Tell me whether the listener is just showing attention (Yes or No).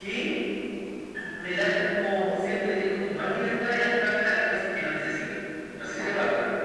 No